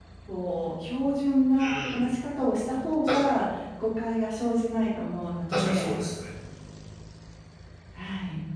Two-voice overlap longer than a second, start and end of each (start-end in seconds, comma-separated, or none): none